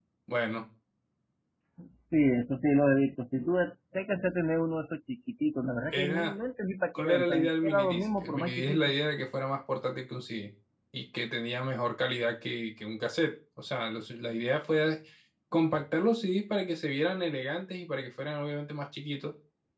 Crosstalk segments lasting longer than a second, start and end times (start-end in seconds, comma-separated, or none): 6.9-8.9